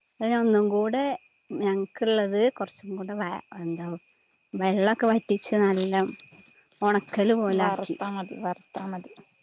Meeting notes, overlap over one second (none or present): none